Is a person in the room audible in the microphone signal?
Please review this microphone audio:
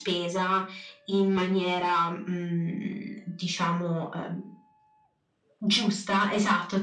No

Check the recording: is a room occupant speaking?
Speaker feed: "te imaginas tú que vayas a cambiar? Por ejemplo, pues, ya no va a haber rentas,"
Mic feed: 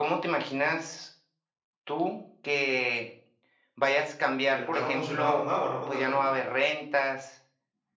Yes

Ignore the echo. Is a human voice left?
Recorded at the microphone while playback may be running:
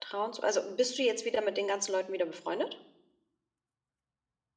Yes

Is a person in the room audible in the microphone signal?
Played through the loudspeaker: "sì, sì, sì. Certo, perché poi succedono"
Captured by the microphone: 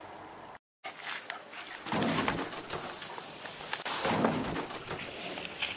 No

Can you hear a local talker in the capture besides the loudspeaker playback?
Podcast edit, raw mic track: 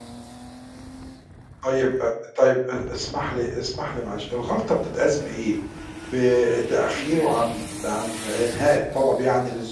Yes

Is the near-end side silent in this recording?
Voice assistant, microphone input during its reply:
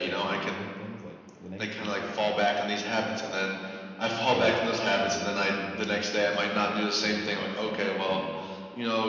No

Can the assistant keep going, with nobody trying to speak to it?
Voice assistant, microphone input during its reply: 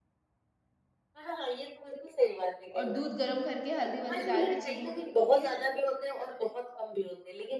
No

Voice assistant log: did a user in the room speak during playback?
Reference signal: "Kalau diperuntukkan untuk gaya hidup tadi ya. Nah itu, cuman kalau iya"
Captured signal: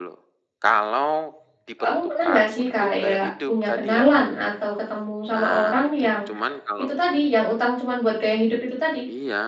Yes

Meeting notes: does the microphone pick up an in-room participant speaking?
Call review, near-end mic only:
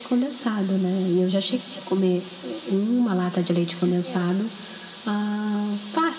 Yes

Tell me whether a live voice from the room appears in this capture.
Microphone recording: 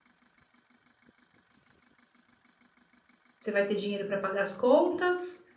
Yes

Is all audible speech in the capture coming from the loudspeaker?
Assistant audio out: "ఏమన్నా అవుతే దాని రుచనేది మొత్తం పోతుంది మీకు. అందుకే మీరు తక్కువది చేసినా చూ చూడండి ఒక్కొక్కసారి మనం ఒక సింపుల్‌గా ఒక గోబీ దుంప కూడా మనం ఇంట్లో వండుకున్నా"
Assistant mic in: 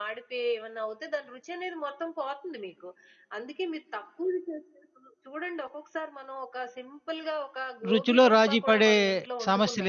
No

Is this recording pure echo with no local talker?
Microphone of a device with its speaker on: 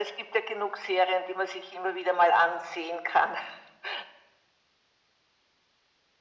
Yes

